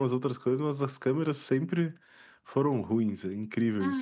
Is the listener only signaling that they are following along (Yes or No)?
No